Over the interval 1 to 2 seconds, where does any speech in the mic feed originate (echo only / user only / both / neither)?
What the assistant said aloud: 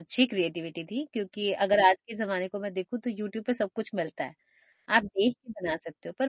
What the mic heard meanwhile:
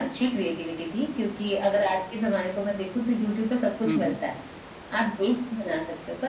echo only